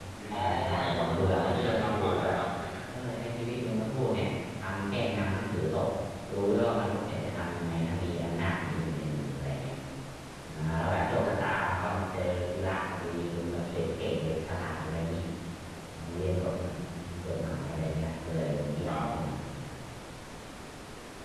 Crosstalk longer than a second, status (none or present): present